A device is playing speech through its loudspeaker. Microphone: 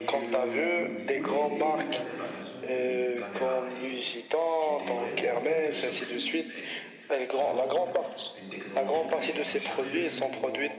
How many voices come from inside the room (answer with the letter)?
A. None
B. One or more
B